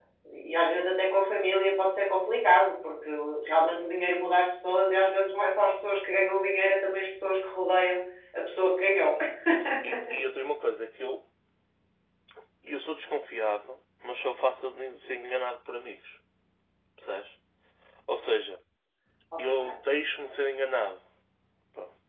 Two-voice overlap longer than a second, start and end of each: none

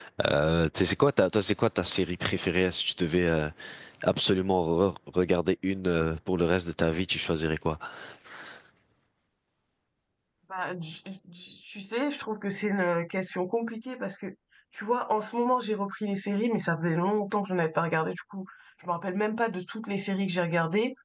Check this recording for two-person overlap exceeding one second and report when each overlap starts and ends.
none

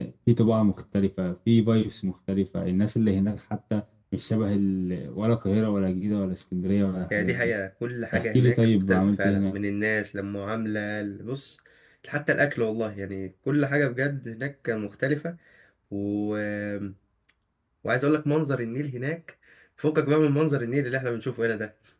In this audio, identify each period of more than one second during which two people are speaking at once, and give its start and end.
8.2-9.6

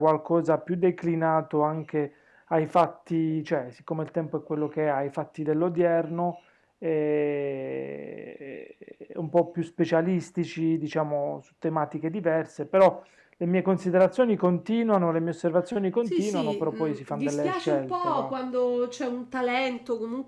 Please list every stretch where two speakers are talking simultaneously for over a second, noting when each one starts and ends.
16.1-18.3

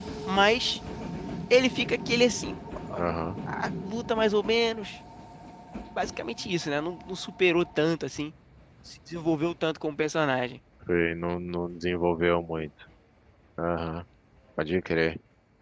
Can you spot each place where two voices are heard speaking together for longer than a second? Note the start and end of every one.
none

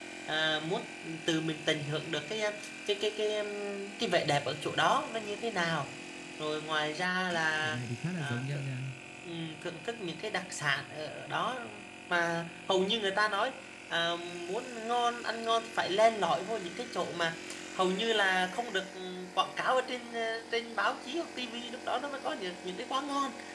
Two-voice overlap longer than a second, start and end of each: none

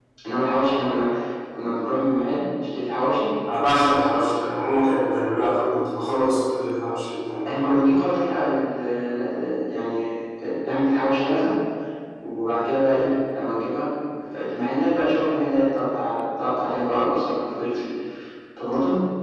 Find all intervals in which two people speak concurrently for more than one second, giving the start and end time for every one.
none

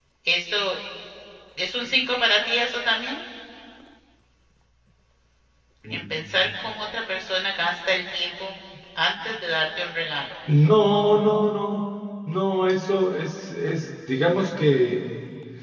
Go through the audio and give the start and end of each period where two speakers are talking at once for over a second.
none

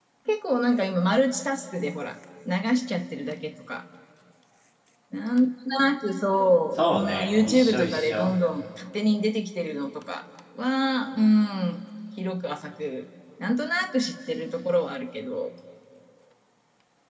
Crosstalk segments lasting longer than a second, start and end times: 6.8-8.3

